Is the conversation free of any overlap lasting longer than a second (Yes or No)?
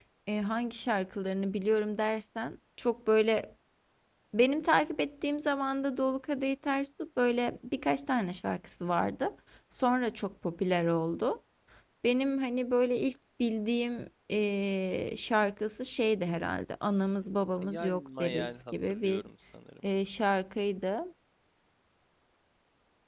No